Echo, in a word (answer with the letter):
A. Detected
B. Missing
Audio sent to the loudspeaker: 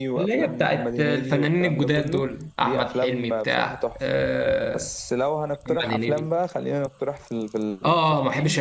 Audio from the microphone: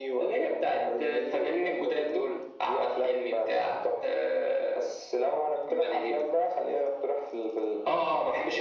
A